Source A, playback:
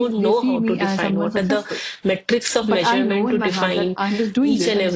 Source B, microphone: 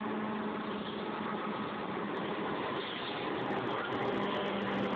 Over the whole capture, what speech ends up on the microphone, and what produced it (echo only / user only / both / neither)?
neither